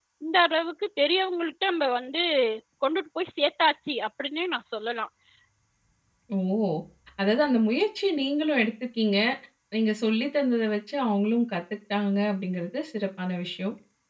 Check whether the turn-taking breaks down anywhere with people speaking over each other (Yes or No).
No